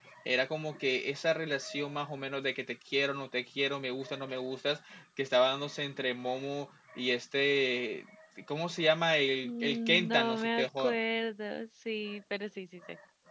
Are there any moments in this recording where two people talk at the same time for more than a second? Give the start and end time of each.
9.4-11.0

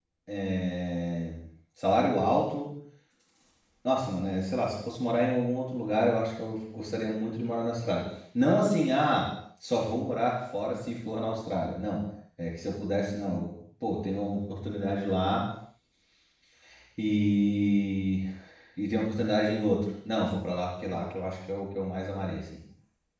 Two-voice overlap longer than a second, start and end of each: none

